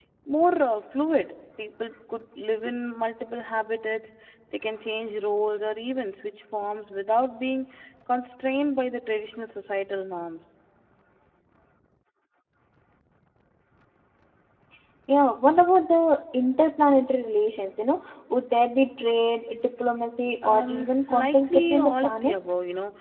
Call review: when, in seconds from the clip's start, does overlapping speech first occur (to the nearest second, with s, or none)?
20 s